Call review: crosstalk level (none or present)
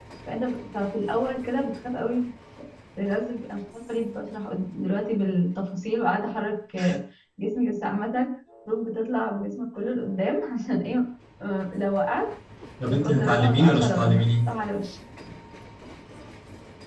present